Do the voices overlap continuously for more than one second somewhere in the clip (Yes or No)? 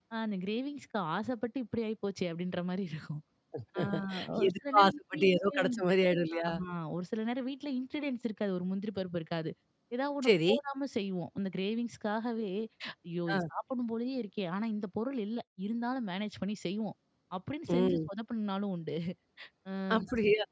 Yes